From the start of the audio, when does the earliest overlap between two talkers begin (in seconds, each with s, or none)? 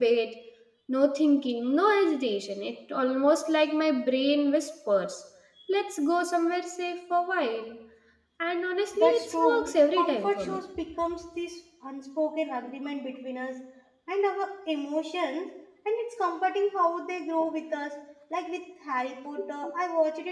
8.9 s